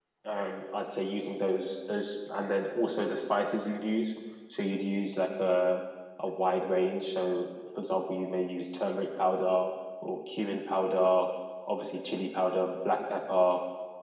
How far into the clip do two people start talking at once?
none

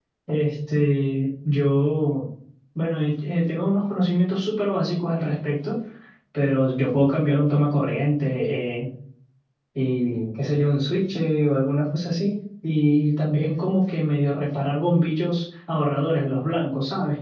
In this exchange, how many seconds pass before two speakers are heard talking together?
none

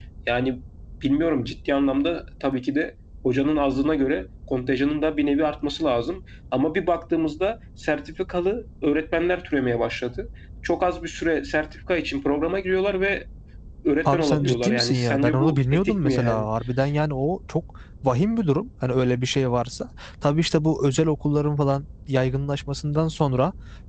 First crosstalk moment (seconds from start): 14.1 s

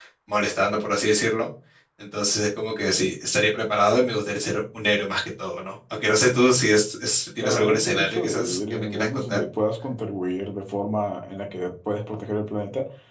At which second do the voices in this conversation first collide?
7.4 s

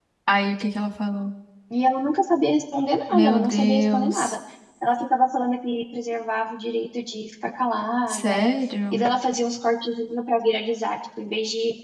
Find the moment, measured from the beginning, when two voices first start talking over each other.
3.1 s

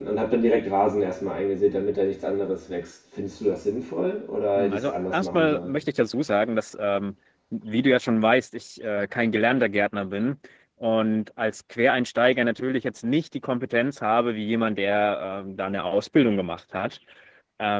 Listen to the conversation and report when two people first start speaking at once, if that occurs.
4.6 s

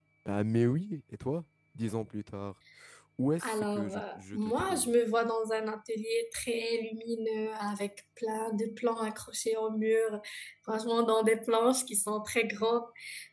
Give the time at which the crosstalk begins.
3.4 s

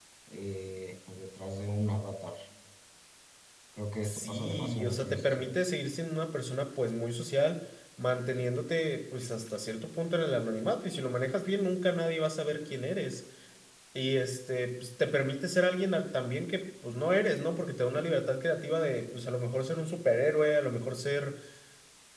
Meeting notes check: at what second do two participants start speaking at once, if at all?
4.0 s

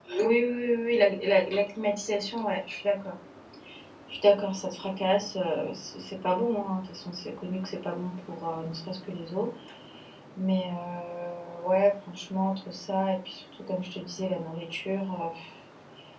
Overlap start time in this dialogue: none

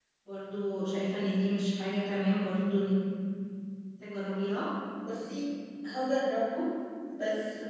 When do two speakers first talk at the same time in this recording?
none

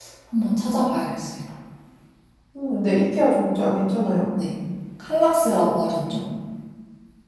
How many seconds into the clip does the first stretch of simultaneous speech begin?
none

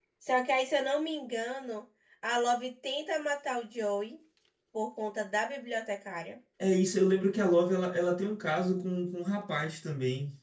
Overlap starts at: none

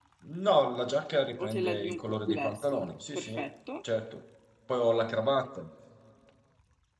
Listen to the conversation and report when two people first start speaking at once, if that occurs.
1.4 s

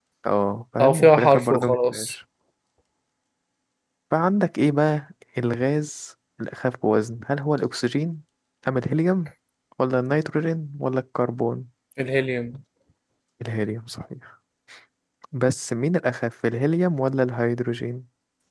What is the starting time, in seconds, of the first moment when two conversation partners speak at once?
0.8 s

